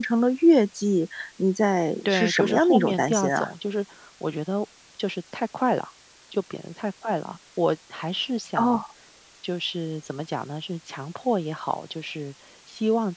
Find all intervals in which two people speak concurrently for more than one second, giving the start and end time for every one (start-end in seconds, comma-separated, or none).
2.0-3.5